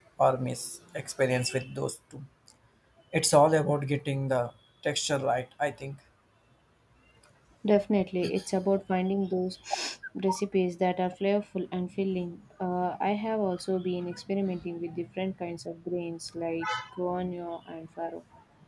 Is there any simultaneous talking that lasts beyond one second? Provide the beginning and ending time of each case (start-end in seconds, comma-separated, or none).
none